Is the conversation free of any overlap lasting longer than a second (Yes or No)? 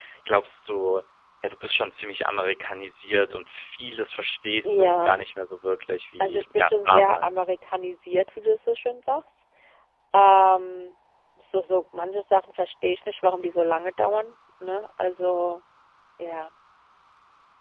No